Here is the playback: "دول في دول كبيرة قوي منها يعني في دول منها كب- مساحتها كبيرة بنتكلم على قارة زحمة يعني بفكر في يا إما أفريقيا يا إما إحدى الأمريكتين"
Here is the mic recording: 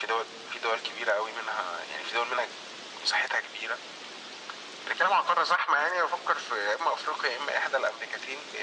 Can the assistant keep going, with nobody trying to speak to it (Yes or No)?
Yes